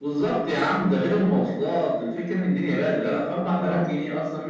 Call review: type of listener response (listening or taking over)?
listening